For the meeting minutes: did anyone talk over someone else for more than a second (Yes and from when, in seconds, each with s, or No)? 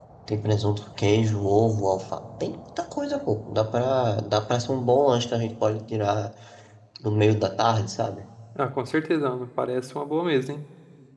No